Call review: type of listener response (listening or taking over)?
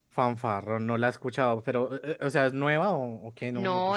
taking over